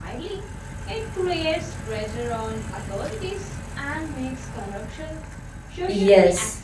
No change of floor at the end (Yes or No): No